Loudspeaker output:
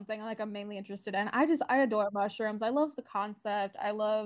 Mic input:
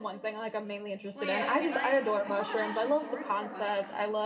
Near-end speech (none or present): present